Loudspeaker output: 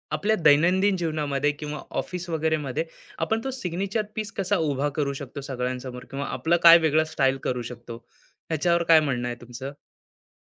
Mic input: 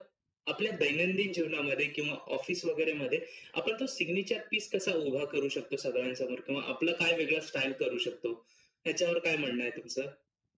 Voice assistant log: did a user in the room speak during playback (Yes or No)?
No